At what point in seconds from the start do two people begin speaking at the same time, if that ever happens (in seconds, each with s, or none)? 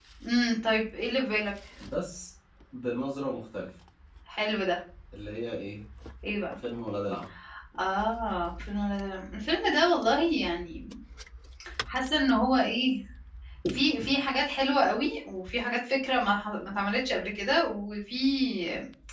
none